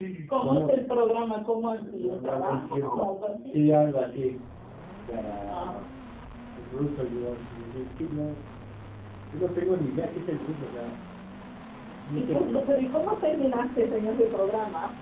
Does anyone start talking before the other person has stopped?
Yes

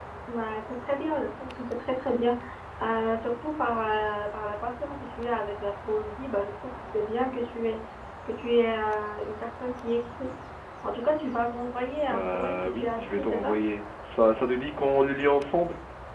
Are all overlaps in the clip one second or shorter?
No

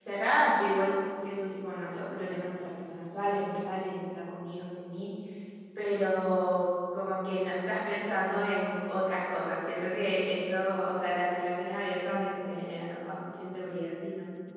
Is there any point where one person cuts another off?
No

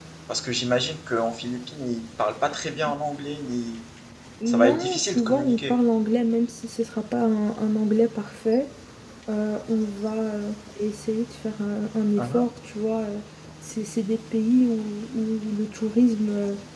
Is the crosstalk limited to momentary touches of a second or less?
No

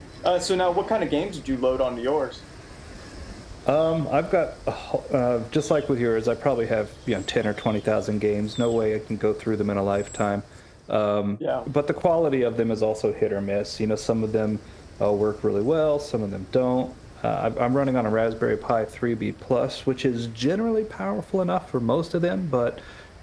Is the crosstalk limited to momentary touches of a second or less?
Yes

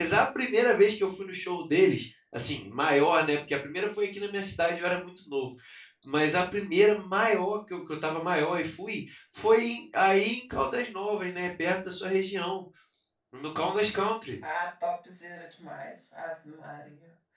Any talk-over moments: No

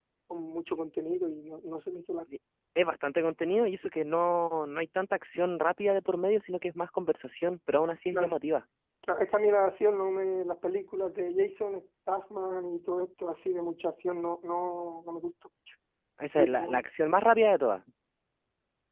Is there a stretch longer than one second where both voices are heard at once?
No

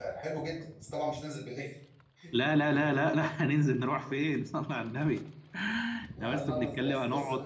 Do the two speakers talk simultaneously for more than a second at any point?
Yes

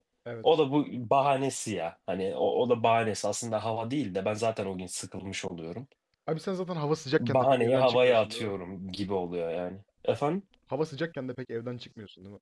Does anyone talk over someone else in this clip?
Yes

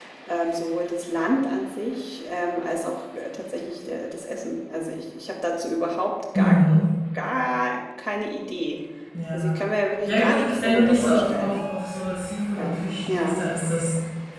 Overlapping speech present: Yes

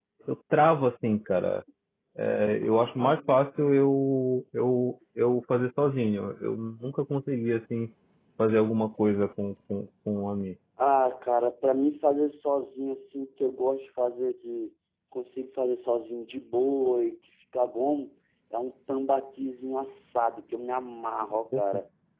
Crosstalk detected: No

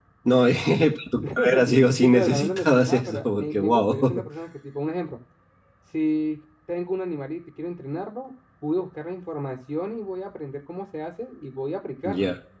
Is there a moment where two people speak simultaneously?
Yes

